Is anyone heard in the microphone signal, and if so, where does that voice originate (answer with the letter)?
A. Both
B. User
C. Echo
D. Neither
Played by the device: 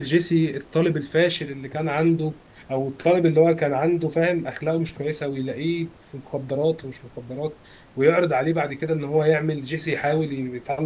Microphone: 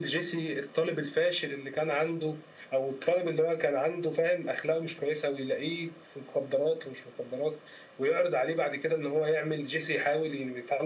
C